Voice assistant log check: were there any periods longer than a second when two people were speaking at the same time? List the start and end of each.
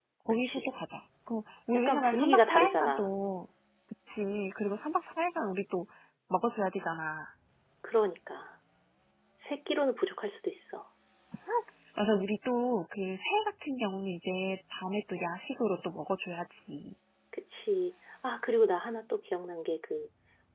1.7-3.1

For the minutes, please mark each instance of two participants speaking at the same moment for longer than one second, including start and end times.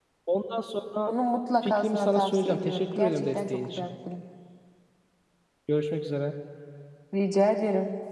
1.6-3.9

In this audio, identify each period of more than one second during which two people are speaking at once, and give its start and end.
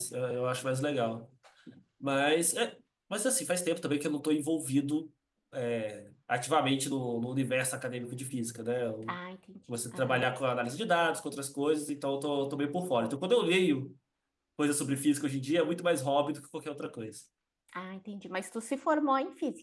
none

